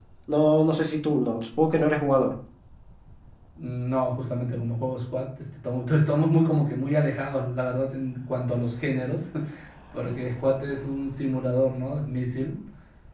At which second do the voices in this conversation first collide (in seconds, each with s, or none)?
none